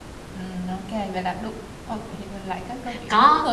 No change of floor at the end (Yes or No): No